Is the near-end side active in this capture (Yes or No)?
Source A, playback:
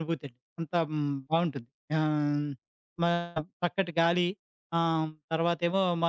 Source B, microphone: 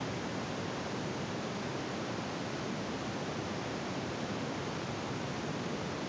No